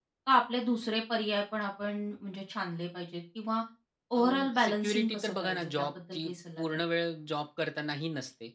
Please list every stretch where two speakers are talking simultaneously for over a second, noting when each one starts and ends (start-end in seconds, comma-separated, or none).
4.2-6.8